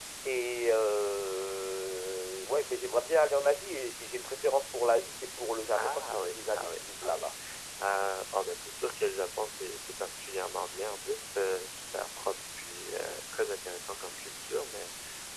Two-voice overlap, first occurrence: 5.7 s

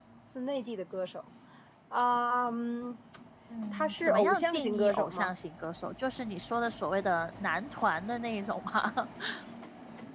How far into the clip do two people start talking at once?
3.7 s

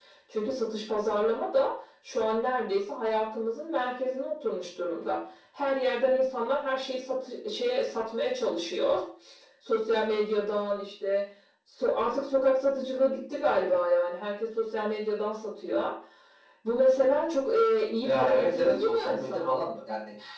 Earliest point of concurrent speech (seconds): 18.0 s

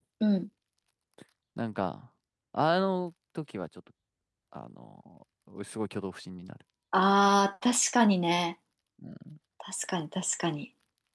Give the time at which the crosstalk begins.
none

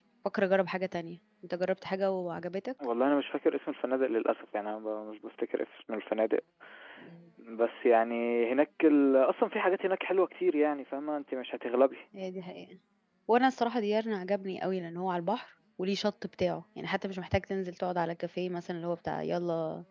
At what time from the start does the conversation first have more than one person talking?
none

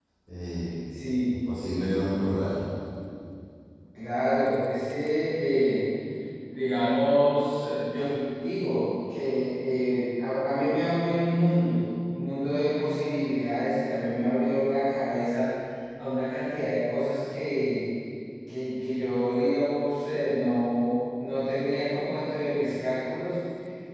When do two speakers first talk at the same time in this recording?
none

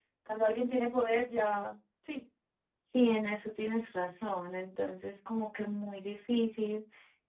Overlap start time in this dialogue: none

